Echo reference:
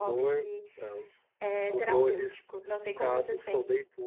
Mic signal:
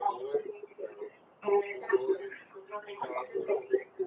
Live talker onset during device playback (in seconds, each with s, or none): none